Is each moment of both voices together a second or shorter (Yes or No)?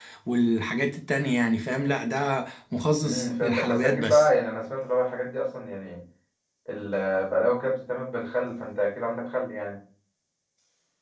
No